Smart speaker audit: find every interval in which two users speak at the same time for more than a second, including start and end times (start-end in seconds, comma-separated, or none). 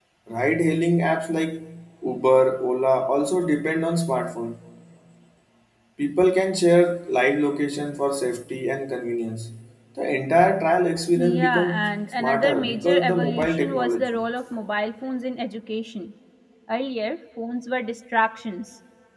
11.2-14.2